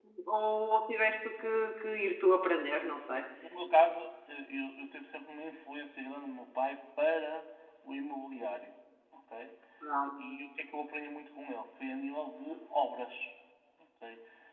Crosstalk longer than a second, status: none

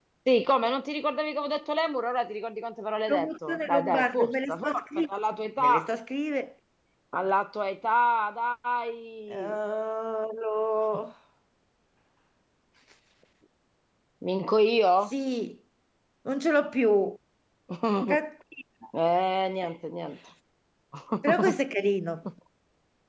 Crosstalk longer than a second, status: present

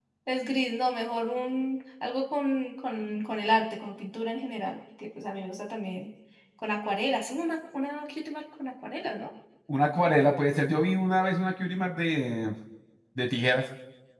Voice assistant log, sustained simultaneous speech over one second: none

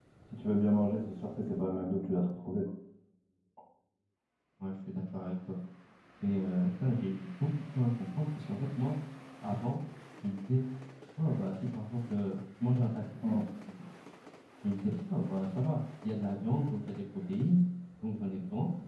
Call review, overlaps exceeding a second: none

